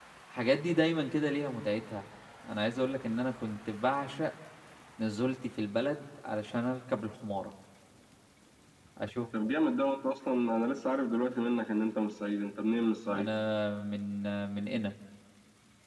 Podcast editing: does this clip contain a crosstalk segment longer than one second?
No

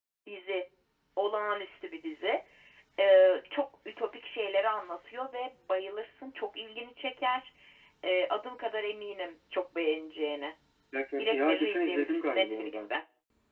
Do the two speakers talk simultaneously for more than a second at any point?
Yes, from 11.2 s

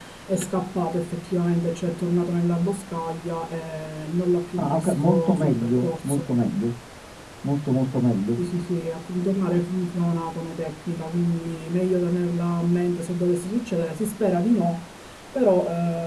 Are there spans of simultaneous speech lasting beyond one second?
Yes, from 4.6 s

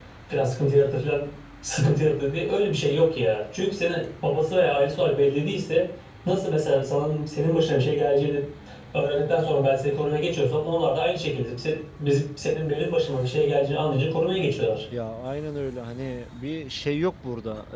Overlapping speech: No

